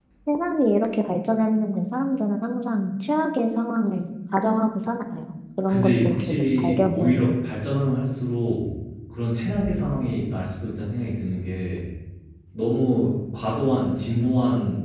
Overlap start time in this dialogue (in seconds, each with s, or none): 5.7 s